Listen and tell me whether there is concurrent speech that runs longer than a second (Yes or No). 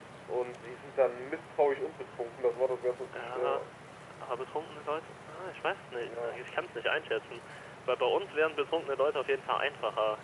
No